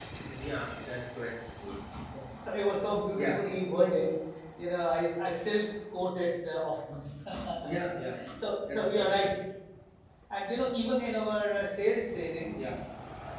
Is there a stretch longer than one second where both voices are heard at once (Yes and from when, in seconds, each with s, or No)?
No